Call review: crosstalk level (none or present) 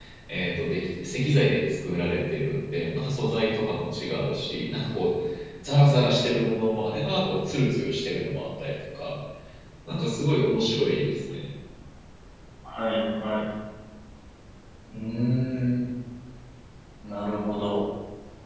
none